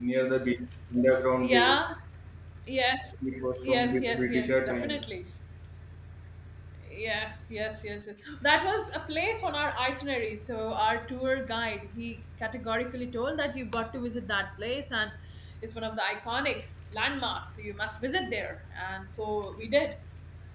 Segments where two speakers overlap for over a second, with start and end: 3.6-5.1

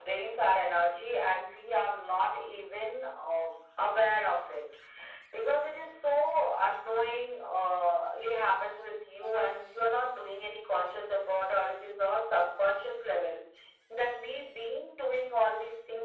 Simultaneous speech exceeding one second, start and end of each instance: none

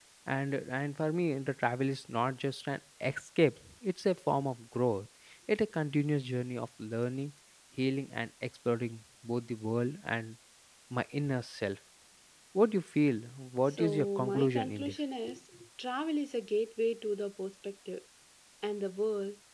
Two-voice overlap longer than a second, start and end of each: 13.7-15.0

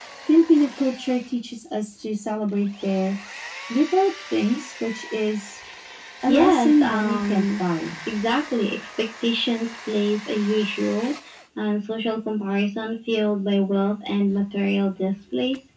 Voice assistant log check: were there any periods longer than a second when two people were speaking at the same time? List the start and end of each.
6.3-7.6

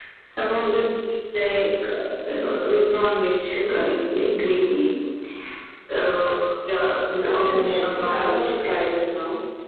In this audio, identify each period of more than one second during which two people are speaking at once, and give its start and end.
7.1-8.4

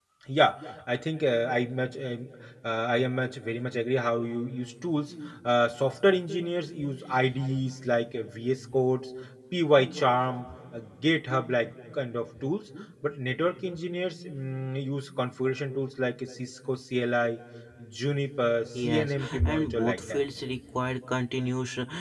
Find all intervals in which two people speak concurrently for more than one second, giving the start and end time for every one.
18.8-20.2

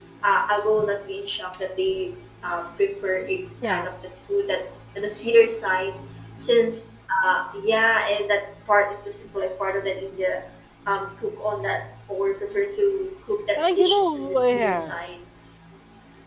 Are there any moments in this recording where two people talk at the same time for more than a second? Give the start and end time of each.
13.6-15.0

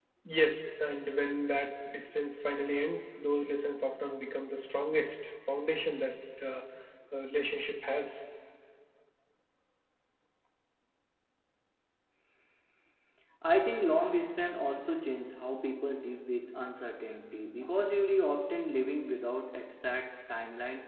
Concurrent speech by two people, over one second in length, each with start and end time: none

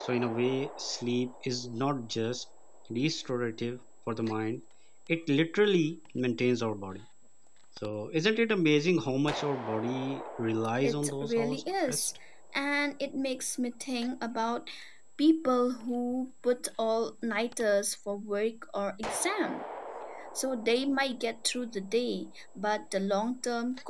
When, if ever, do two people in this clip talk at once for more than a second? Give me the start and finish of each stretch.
10.8-12.1

